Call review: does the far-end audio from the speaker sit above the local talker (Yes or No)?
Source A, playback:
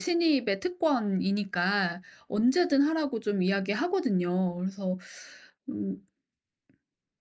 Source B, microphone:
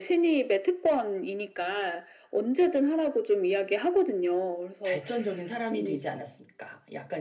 Yes